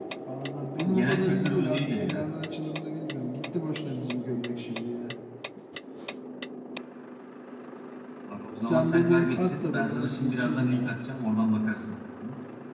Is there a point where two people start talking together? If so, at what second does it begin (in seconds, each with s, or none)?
0.8 s